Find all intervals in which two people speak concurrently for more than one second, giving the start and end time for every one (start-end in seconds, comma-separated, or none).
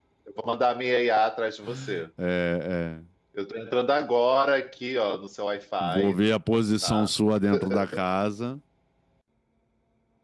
none